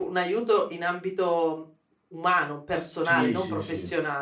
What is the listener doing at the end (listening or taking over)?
taking over